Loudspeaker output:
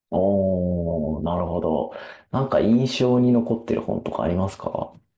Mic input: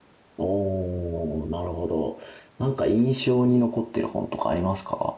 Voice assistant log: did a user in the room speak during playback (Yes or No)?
No